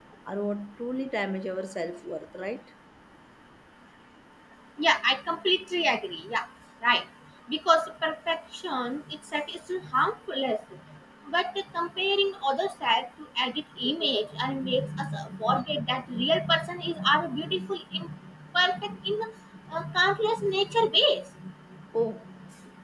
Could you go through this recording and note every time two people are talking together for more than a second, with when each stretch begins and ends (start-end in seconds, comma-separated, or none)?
none